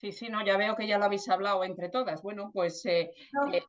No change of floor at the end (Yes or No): Yes